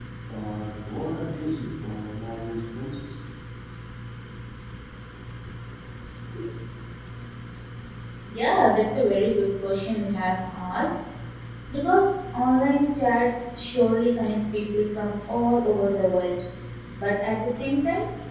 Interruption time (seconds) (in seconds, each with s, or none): none